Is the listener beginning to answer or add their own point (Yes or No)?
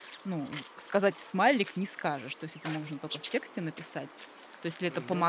No